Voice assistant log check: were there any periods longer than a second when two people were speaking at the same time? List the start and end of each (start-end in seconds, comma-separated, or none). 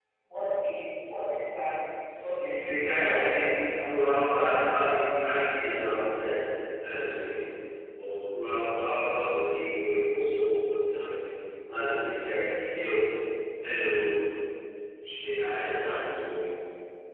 2.4-4.3